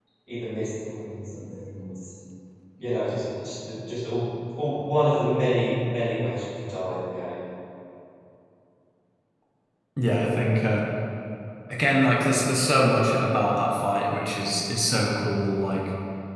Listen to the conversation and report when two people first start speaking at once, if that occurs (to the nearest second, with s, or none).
none